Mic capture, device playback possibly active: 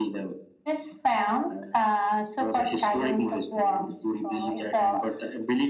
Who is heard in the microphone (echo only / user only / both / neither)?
echo only